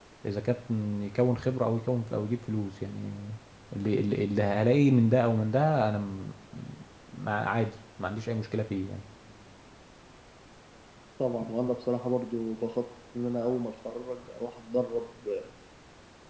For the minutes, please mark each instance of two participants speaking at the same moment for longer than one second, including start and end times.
none

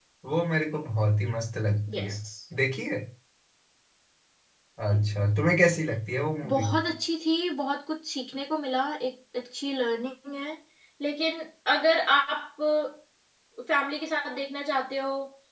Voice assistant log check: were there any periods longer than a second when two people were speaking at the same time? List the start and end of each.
none

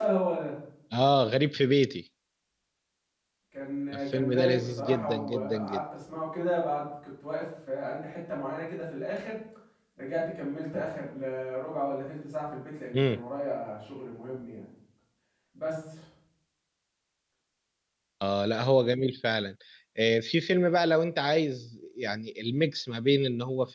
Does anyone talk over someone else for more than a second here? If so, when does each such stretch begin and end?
4.1-5.8

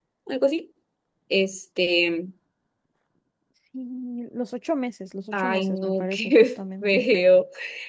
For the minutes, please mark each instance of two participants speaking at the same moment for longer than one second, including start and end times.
5.3-7.0

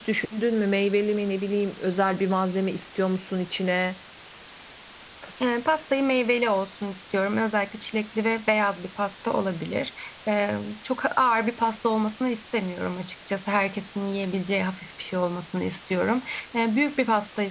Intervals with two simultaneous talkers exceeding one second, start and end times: none

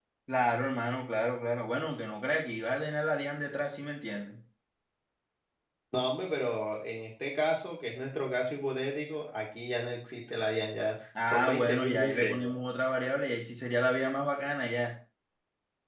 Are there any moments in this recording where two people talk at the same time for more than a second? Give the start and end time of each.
11.2-12.5

